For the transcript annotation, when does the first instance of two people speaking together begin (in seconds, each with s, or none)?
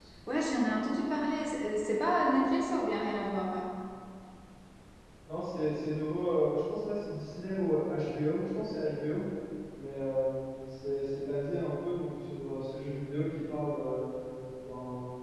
none